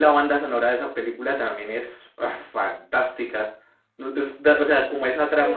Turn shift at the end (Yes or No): Yes